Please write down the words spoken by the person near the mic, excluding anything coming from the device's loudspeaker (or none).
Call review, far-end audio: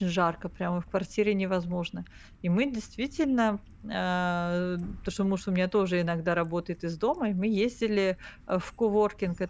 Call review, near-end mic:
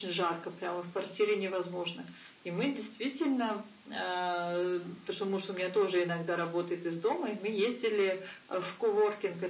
none